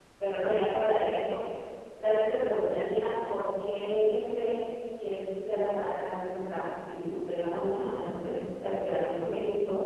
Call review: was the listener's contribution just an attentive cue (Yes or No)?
Yes